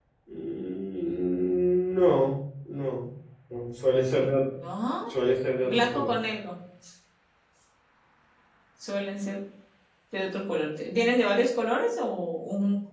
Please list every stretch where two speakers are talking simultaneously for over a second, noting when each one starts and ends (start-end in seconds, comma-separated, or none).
none